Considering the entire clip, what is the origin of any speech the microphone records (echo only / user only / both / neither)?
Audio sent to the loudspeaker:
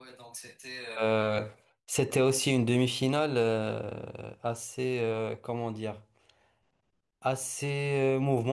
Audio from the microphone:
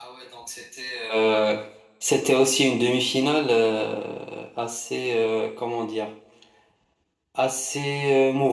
echo only